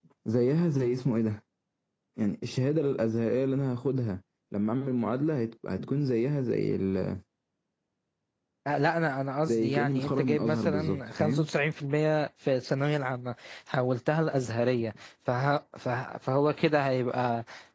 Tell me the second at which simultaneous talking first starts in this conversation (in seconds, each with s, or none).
9.5 s